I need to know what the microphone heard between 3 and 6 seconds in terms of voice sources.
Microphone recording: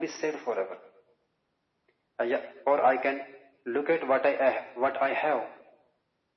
echo only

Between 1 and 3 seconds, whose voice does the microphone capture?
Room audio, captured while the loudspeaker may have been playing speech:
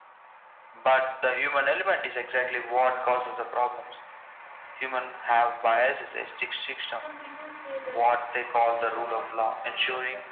echo only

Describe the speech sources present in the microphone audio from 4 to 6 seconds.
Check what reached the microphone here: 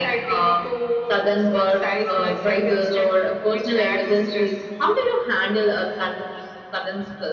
echo only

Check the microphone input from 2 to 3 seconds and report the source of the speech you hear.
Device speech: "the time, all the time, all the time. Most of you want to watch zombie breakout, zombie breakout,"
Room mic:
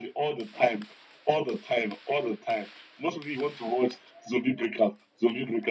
echo only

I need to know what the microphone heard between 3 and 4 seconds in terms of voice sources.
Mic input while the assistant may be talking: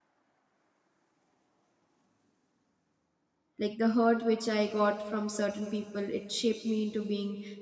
user only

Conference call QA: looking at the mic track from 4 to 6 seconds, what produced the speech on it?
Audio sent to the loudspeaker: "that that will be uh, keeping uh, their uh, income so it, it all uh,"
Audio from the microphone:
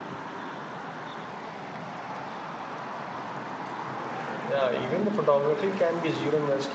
user only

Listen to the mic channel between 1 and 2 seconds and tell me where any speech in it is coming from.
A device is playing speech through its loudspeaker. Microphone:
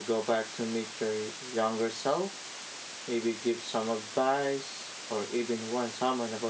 user only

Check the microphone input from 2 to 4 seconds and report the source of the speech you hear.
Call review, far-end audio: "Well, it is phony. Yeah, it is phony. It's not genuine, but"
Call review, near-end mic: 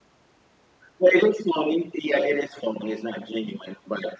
echo only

